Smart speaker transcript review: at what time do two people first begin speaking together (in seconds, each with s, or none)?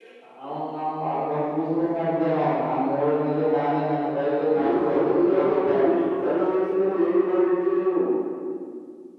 4.5 s